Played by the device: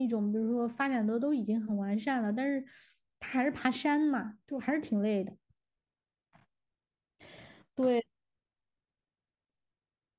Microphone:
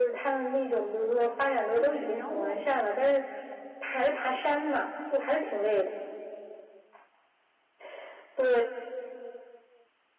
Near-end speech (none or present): present